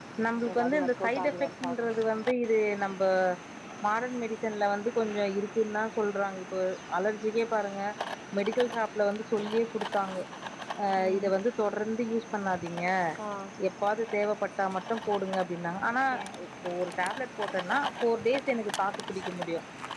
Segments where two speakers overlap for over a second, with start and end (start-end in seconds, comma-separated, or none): 0.5-1.9